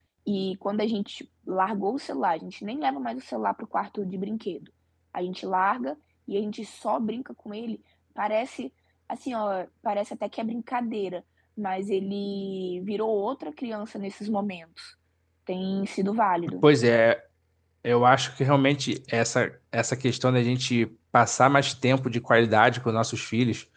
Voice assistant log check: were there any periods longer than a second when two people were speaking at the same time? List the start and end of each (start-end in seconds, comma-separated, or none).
none